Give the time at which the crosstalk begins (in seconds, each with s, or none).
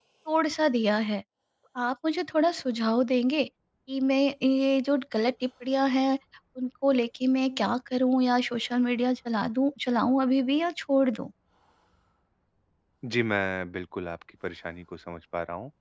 none